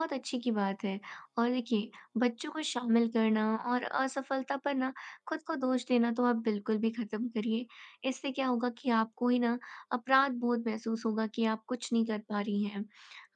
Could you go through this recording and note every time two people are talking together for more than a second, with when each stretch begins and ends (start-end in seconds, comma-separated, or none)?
none